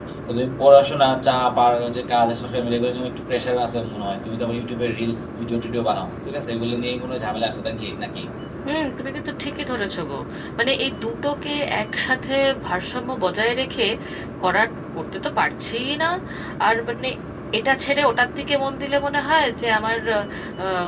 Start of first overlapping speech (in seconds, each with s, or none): none